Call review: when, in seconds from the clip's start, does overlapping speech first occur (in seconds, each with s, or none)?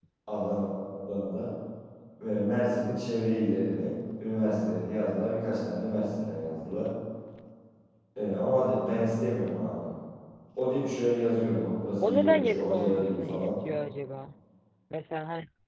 12.0 s